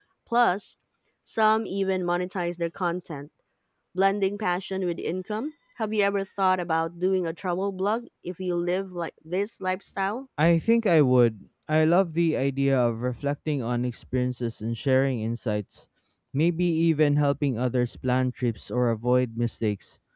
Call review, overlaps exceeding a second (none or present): none